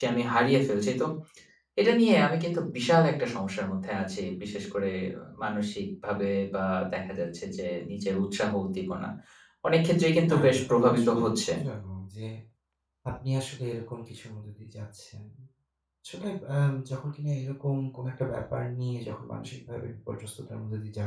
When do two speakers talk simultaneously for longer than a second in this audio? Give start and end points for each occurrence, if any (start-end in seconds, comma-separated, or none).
10.3-11.5